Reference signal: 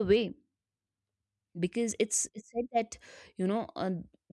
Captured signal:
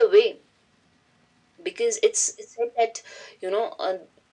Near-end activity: none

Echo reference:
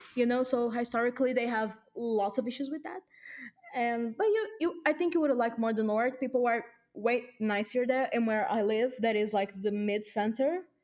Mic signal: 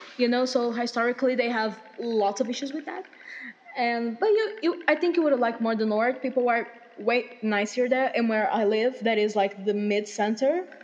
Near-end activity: none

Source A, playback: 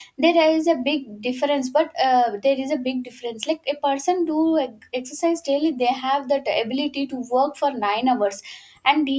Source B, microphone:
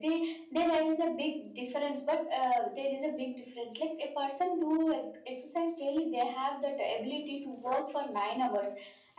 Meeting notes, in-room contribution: present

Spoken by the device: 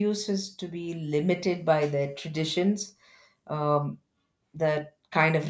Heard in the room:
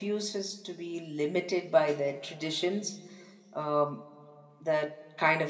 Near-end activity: none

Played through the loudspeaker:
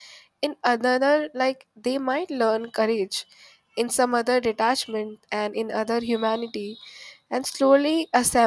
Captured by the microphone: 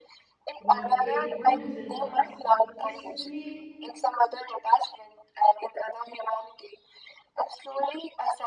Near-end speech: present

